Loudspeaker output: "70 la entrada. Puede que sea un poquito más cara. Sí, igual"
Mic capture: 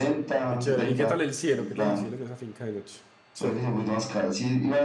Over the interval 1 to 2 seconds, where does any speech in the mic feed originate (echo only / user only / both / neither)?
both